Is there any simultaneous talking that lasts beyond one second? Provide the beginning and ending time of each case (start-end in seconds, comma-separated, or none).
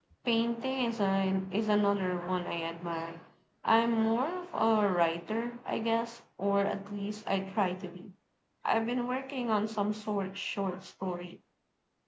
none